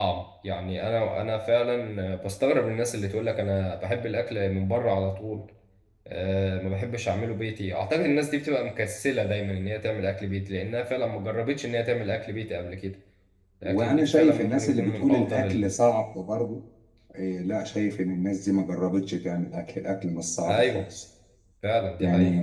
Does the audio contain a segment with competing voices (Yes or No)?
Yes